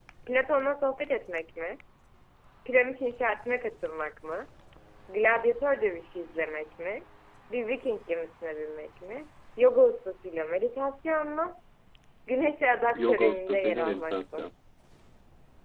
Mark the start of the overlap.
12.9 s

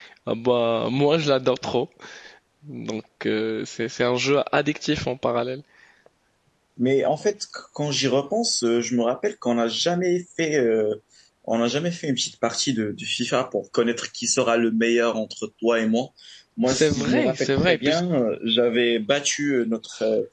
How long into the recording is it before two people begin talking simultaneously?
16.7 s

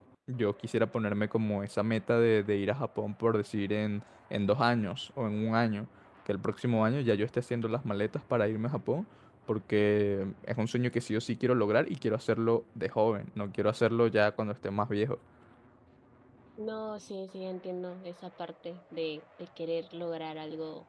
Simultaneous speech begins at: none

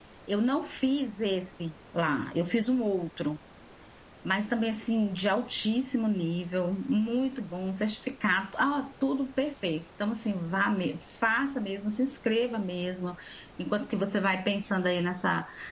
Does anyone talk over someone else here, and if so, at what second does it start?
none

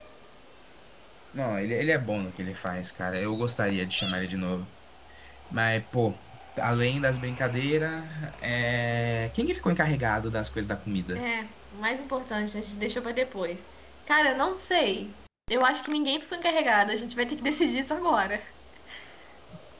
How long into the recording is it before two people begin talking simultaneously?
none

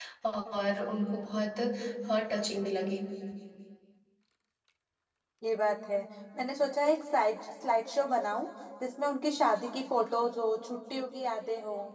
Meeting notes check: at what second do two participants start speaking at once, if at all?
none

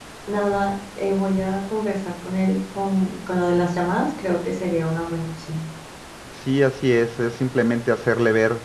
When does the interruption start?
none

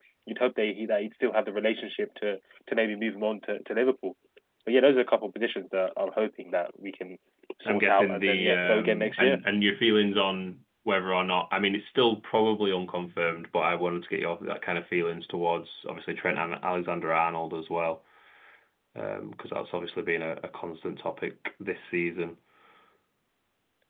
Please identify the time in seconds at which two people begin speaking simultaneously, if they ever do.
7.6 s

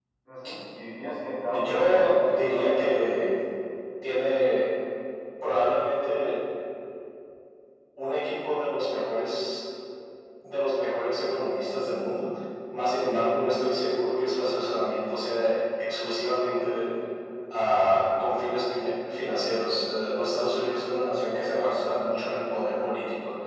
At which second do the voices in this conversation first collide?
1.5 s

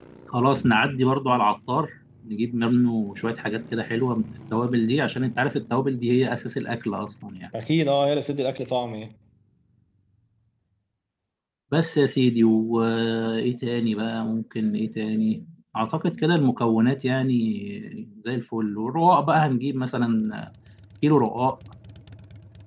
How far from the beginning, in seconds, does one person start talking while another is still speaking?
none

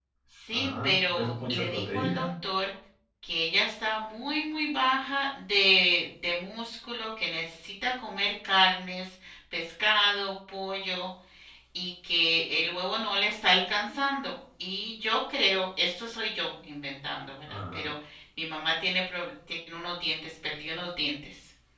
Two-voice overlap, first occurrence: 0.5 s

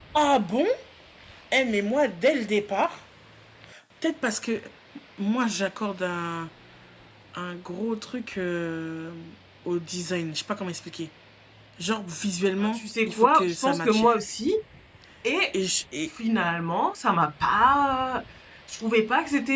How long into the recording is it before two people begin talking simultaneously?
12.6 s

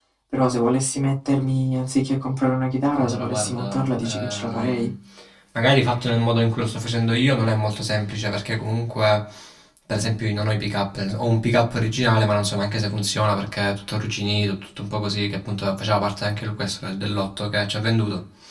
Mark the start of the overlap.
3.0 s

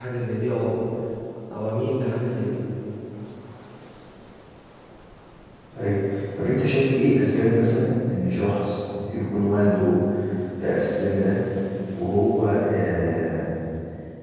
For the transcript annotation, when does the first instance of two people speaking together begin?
none

